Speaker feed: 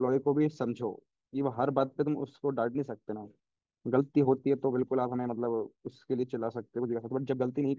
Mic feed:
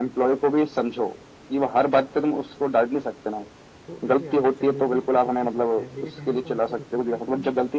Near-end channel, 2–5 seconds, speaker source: both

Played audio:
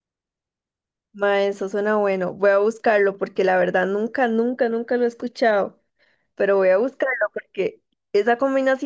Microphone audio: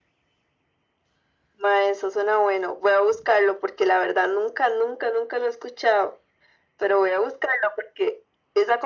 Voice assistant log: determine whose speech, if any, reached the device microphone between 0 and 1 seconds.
neither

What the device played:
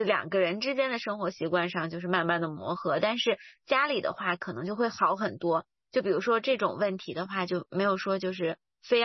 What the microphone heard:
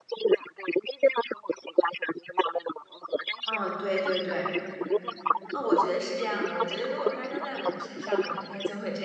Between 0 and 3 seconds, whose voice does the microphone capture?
echo only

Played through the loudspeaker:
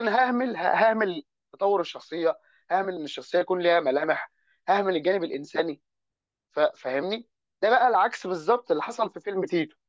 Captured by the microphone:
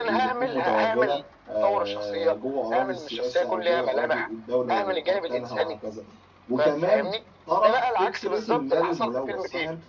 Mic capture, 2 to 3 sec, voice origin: both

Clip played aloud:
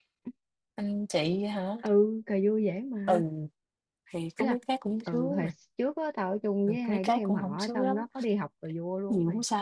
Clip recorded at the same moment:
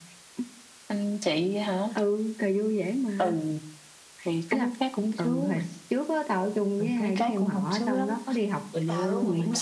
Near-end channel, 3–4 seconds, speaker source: echo only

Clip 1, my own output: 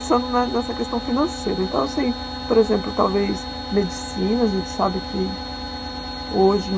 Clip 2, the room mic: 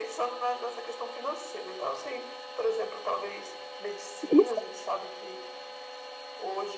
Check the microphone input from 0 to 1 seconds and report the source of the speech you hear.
echo only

